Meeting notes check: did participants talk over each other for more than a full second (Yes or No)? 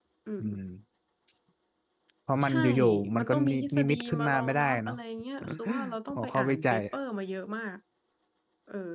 Yes